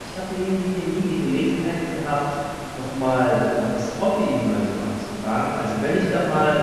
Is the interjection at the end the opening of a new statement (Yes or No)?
No